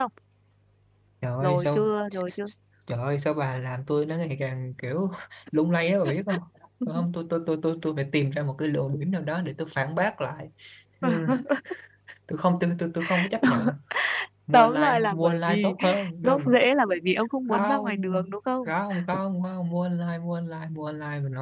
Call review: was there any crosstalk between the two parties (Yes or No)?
Yes